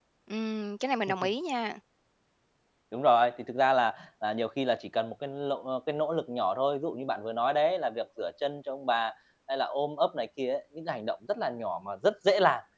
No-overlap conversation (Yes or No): Yes